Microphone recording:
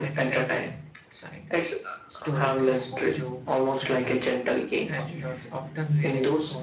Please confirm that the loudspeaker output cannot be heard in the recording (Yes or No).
No